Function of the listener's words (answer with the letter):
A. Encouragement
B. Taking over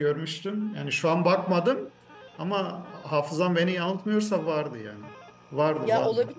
B